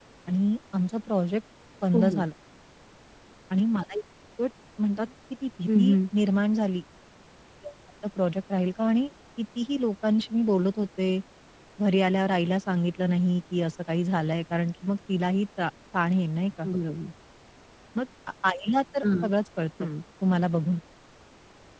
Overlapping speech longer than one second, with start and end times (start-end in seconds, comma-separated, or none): none